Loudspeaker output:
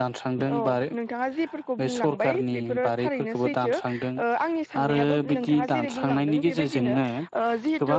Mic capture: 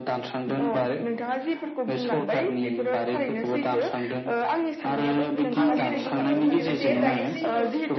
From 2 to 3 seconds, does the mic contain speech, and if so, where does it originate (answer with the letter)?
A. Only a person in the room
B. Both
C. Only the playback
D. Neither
C